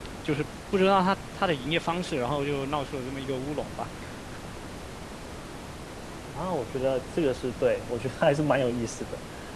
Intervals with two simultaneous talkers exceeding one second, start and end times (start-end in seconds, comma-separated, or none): none